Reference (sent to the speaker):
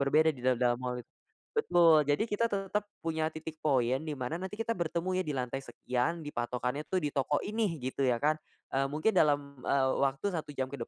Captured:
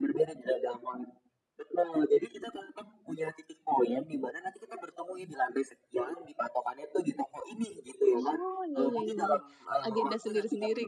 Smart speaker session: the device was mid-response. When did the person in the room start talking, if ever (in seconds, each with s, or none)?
8.1 s